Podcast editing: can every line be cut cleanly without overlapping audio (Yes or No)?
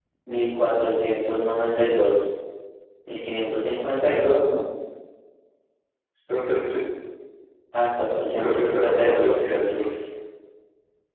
No